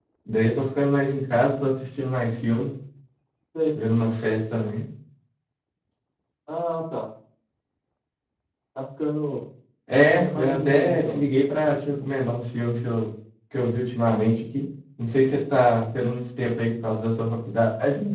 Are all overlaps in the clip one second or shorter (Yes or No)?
No